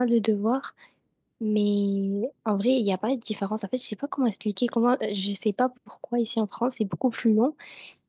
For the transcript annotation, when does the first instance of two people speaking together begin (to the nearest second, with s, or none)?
none